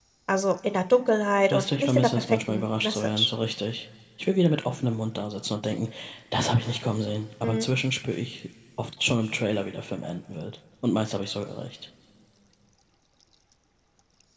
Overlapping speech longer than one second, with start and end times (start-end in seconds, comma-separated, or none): 1.5-3.3